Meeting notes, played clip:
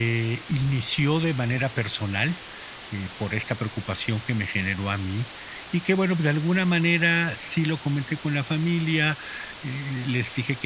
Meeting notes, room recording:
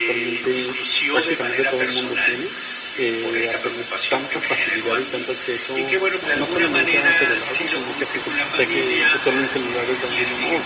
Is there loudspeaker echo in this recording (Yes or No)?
Yes